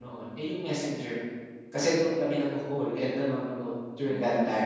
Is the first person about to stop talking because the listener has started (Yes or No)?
Yes